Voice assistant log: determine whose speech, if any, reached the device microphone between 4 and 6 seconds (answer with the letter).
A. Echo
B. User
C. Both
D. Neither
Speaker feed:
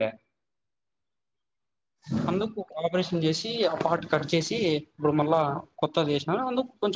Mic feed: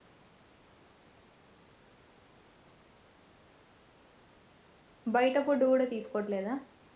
B